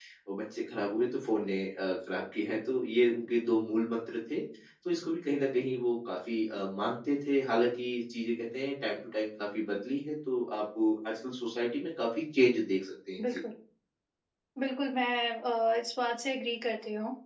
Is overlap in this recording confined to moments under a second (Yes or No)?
Yes